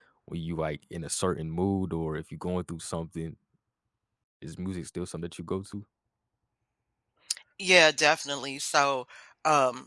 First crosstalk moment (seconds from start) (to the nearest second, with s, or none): none